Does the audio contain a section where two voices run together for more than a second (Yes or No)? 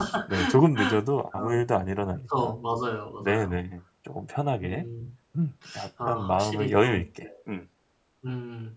Yes